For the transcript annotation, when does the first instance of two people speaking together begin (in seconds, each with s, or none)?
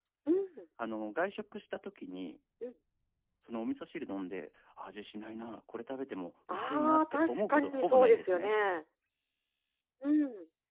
6.5 s